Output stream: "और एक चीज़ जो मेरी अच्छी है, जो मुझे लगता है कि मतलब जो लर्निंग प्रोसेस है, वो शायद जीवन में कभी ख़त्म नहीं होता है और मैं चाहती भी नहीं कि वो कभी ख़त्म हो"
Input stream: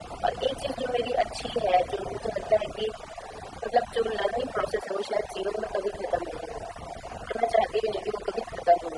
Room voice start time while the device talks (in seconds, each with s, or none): none